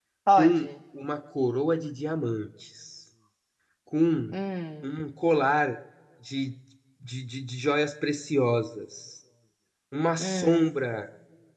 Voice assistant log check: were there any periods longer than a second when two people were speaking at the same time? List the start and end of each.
none

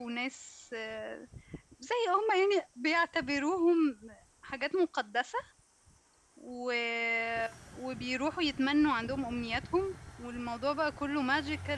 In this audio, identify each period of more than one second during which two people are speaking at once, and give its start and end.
none

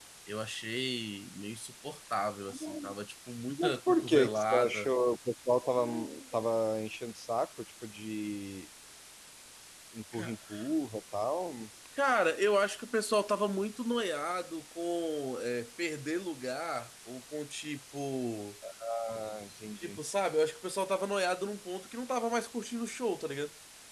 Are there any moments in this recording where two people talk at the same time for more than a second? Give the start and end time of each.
3.6-4.9

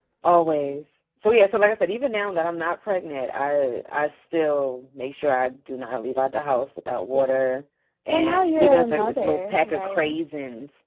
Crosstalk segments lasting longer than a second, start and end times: 8.1-10.1

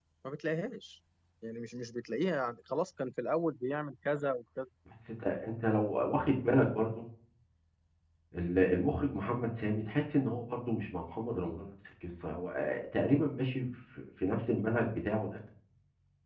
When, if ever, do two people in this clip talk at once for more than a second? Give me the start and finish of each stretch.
none

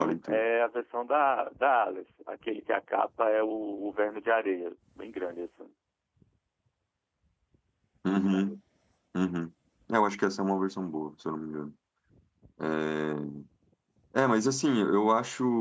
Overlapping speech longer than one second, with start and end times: none

